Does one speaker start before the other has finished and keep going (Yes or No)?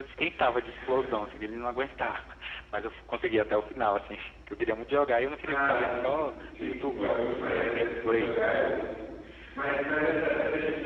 Yes